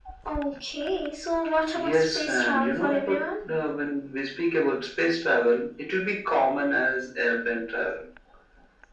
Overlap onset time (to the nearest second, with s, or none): 2 s